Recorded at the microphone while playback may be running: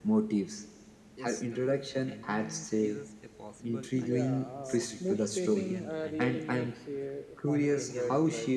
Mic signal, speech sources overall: both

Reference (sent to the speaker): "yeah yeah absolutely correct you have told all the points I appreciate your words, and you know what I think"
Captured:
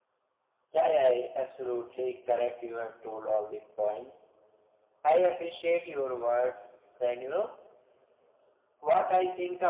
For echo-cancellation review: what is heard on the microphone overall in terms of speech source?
echo only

